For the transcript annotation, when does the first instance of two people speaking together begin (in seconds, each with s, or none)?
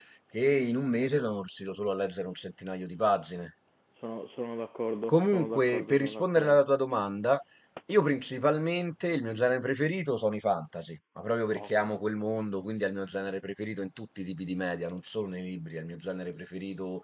5.1 s